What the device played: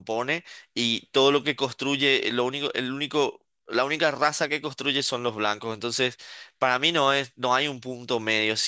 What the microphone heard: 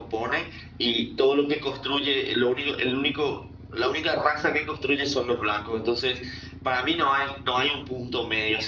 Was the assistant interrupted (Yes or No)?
No